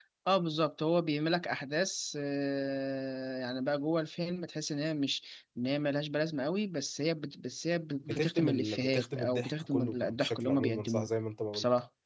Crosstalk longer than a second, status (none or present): present